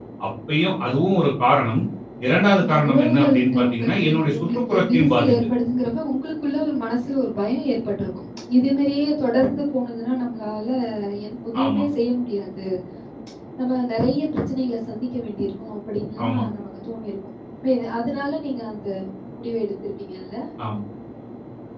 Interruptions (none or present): present